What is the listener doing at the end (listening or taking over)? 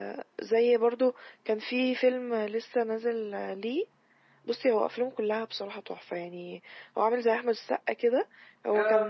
listening